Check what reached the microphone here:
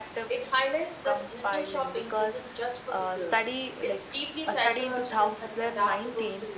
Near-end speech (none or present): none